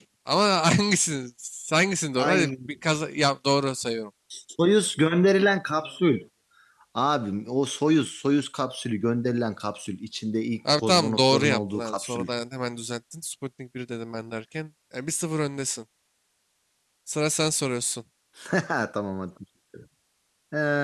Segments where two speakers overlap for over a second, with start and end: 10.8-12.3

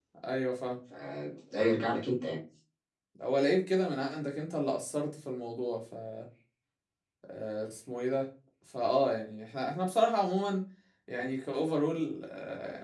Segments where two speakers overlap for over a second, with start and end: none

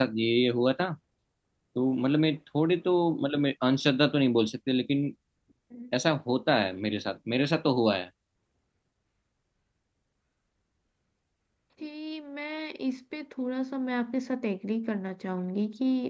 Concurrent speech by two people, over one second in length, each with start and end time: none

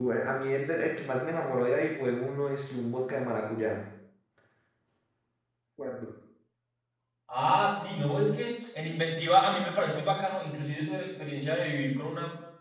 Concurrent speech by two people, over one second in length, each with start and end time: none

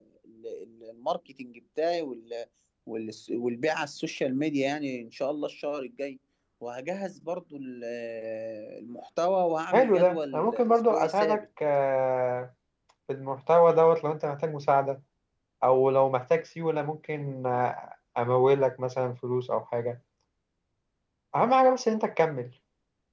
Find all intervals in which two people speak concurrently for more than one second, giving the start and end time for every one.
9.7-11.4

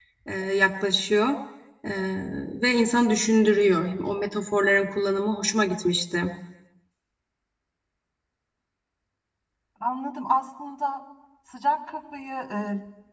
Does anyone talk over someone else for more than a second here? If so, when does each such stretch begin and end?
none

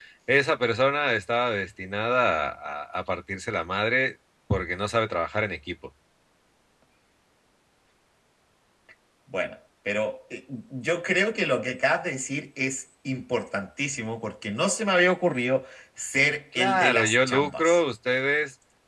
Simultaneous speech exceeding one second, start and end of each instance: 16.6-17.8

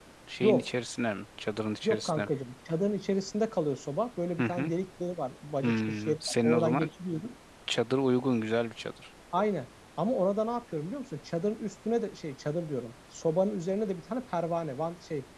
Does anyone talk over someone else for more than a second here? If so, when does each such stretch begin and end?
5.6-6.9

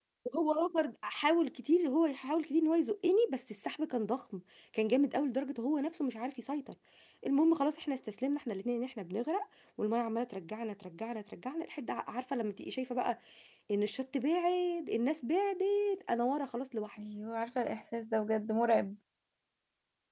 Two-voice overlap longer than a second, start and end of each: none

